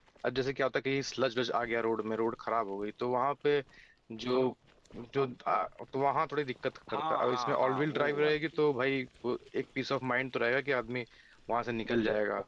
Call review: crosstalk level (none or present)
present